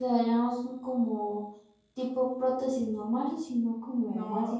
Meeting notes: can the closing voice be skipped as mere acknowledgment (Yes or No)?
No